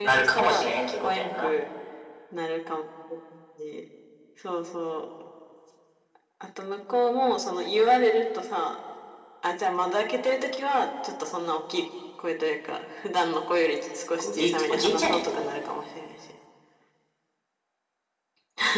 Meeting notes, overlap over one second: present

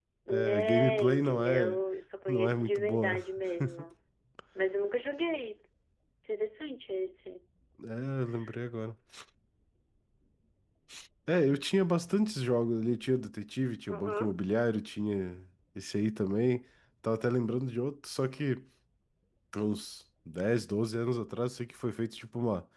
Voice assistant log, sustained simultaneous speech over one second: present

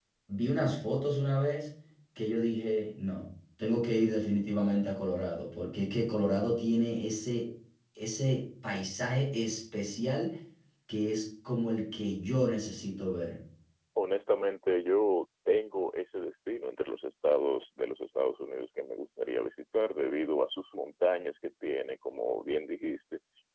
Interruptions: none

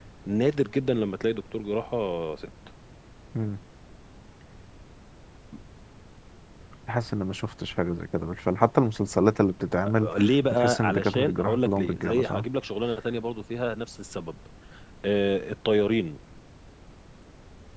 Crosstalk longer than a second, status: present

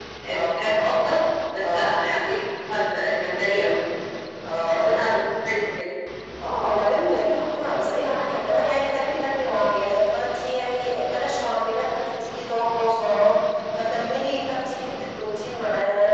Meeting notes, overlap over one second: none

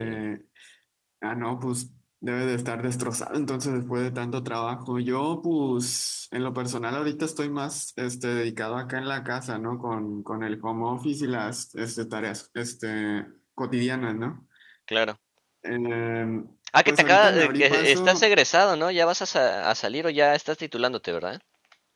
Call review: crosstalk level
present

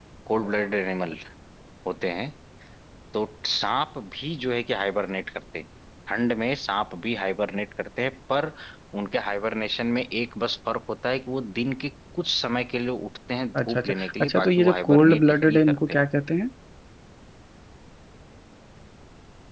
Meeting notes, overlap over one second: present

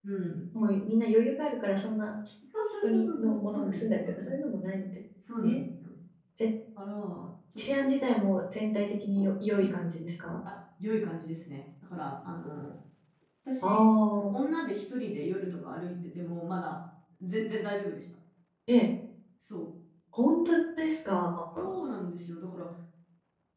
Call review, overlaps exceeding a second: present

